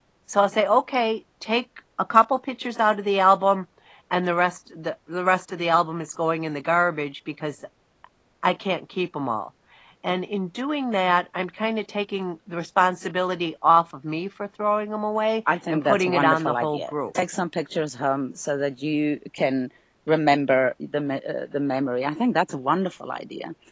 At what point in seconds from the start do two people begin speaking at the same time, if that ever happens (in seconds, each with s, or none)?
15.7 s